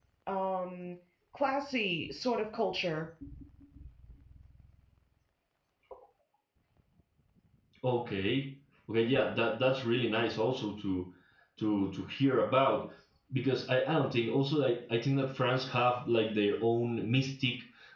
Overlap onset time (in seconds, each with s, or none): none